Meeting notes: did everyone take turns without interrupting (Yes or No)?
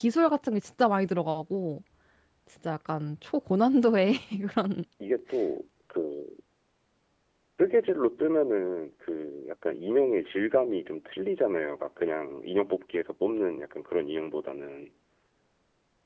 Yes